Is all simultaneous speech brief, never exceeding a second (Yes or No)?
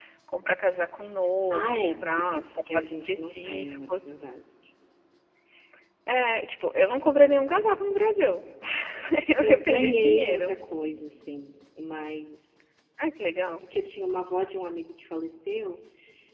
No